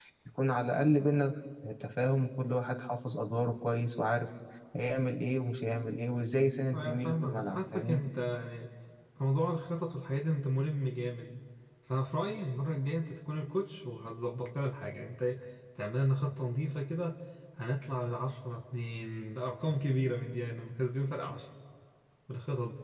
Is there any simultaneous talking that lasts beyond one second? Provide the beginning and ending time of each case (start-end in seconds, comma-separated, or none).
6.7-8.0